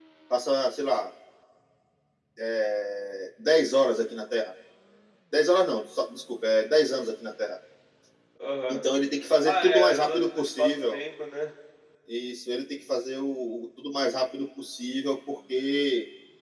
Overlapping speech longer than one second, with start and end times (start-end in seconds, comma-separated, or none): 9.4-11.0